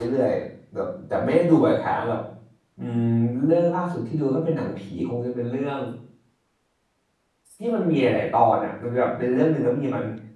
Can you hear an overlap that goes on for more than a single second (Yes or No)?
No